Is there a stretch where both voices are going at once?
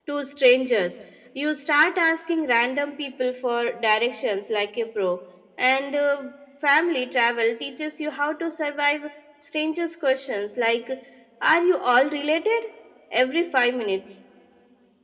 No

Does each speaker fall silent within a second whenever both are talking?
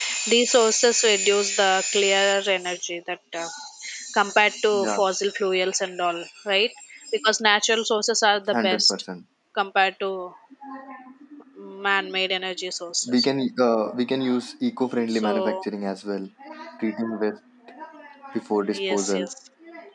Yes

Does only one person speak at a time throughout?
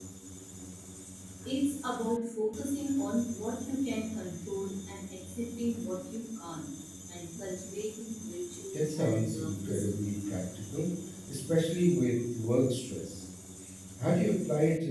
No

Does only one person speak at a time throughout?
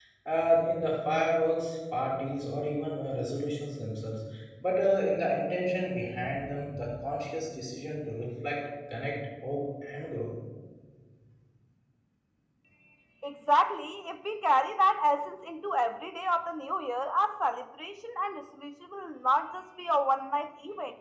Yes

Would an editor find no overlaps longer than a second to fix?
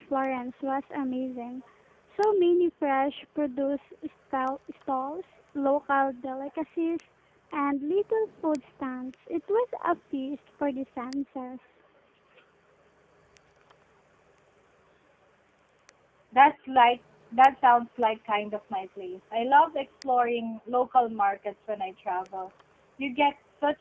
Yes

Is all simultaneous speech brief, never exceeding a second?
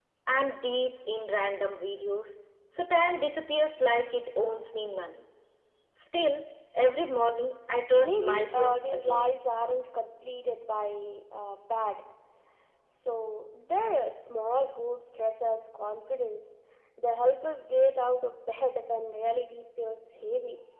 No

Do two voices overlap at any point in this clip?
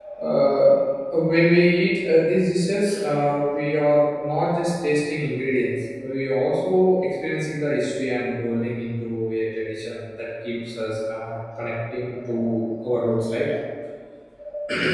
No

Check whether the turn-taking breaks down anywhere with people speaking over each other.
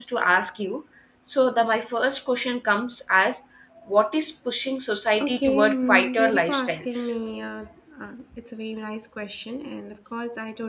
Yes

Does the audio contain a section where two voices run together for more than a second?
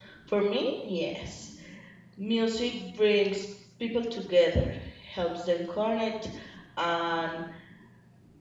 No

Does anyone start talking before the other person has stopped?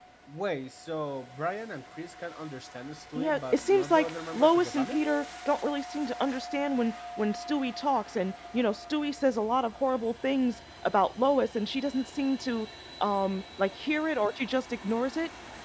Yes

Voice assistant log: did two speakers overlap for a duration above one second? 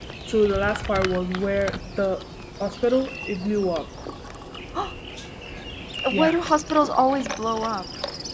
No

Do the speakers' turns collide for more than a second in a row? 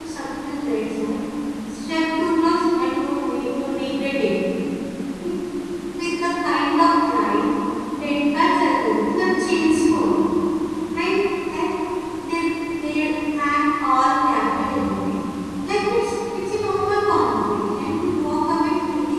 No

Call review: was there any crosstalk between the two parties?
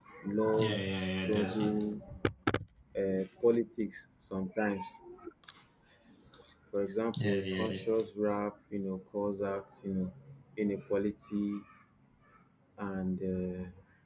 Yes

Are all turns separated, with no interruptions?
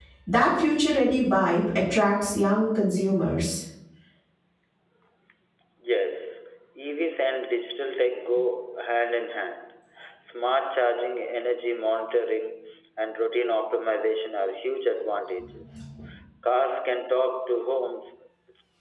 Yes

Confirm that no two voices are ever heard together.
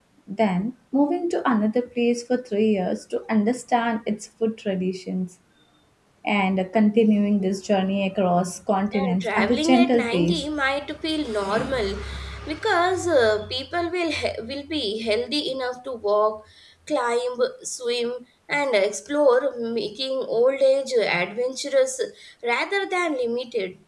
No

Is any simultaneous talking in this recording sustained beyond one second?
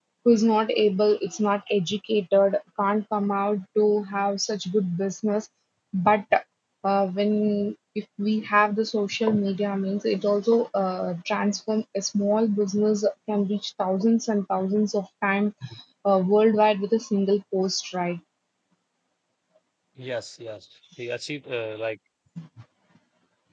No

